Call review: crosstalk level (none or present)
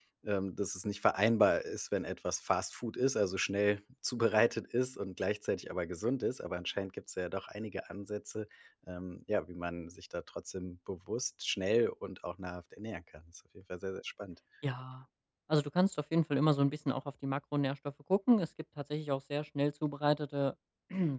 none